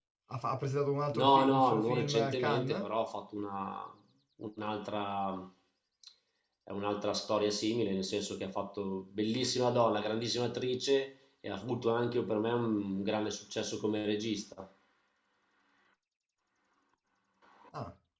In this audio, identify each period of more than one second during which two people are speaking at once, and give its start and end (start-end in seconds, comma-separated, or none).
1.2-2.8